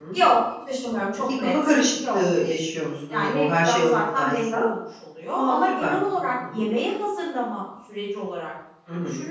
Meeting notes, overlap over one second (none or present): present